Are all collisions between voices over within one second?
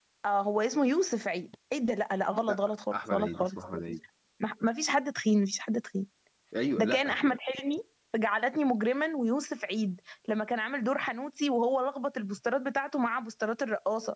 No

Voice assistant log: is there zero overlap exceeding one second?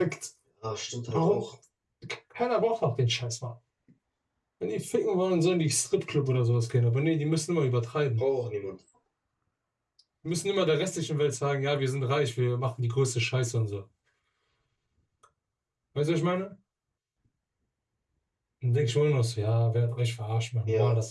Yes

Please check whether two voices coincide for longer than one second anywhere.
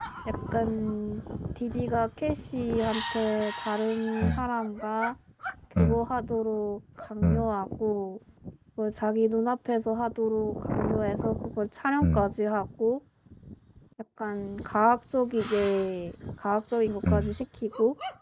No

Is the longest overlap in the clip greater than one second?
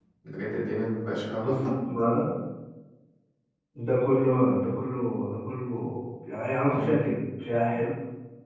No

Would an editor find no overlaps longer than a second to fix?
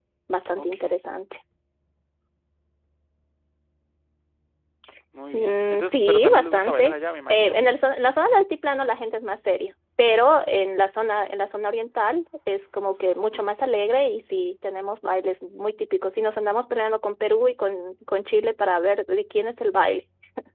No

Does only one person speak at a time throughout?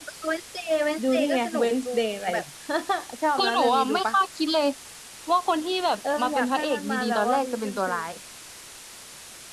No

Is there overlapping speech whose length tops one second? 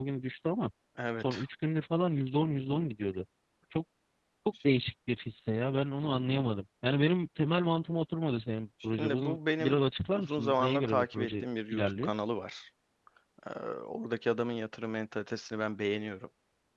Yes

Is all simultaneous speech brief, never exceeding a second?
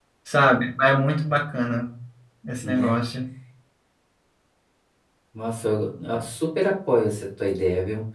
Yes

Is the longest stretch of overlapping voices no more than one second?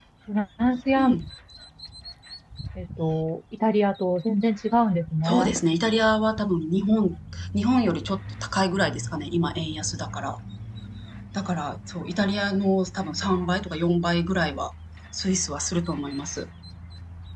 Yes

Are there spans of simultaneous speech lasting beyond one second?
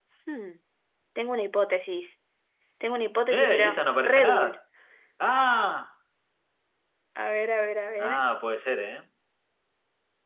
Yes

